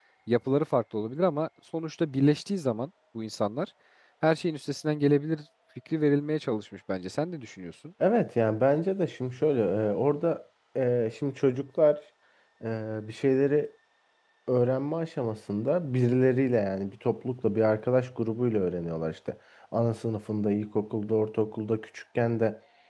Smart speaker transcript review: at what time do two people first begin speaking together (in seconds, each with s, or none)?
none